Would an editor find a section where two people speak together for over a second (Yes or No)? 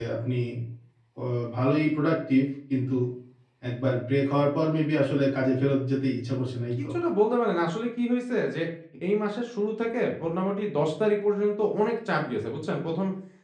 No